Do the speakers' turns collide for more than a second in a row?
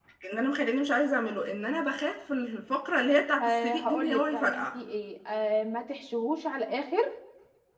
Yes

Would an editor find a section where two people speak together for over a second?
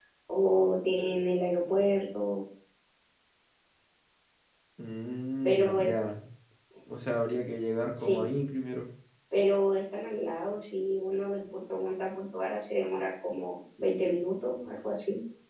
No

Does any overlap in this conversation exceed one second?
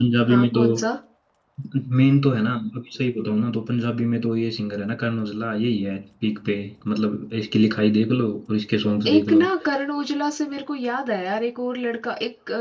No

